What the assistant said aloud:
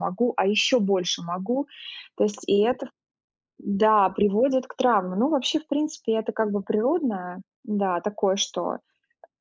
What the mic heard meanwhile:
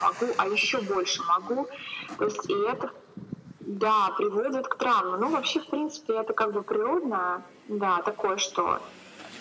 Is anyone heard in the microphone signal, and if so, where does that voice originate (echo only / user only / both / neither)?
echo only